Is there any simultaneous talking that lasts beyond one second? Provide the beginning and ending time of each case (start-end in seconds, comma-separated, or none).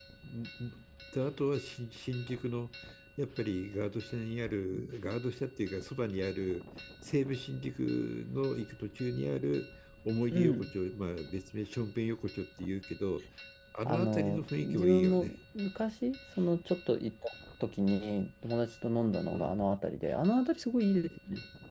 13.8-15.3